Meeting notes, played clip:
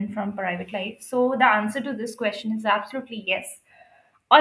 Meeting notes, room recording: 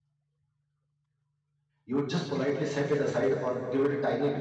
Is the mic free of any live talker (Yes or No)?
No